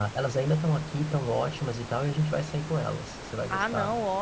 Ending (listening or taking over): taking over